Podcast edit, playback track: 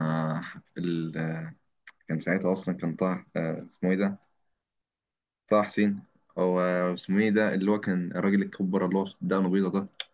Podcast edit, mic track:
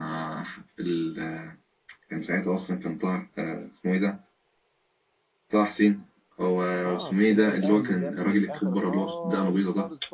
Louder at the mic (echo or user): echo